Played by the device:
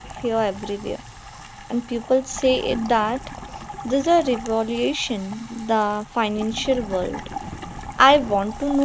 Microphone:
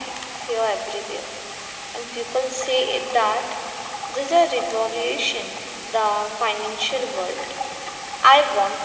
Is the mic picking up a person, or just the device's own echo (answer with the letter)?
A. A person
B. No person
B